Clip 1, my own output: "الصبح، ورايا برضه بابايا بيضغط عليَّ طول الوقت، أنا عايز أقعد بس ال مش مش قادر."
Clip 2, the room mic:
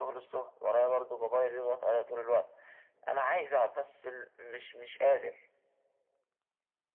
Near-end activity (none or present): none